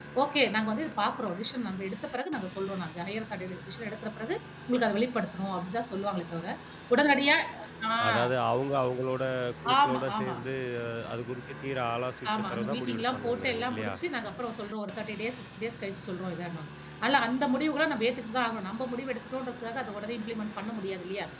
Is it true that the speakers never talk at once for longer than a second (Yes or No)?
No